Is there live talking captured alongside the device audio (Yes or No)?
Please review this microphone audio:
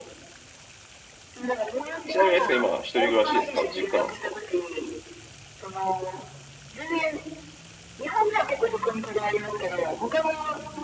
Yes